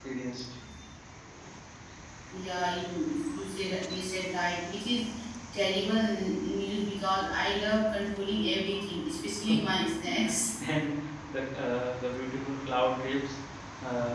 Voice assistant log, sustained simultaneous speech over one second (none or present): none